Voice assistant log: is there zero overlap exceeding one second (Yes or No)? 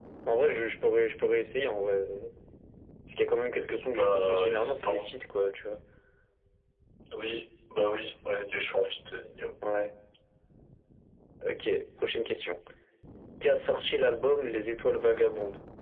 No